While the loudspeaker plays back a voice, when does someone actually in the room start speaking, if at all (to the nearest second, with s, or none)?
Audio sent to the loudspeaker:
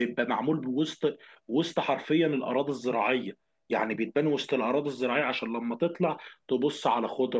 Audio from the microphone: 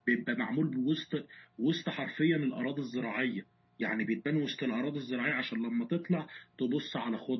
none